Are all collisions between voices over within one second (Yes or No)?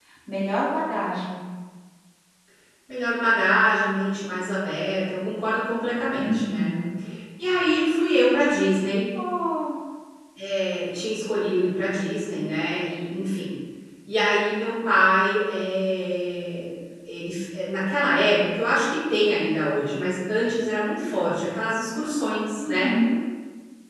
Yes